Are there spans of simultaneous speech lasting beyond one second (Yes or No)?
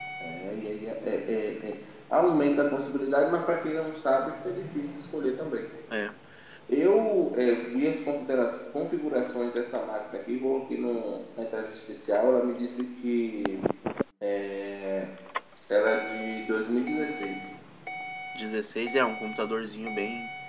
No